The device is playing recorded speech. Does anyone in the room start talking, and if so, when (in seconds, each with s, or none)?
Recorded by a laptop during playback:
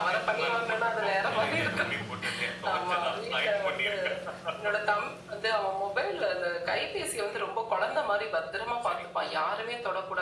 1.2 s